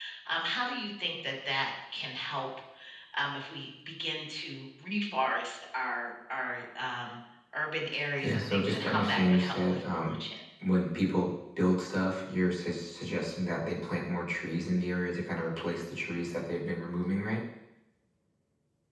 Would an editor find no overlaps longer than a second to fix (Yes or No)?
No